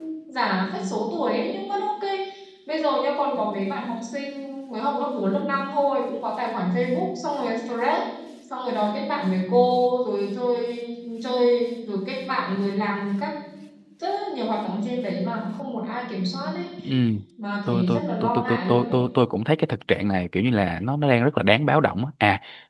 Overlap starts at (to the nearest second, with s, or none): 18 s